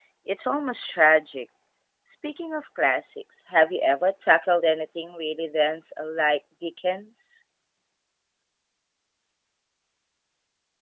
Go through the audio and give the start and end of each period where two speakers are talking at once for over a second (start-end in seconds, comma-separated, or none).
none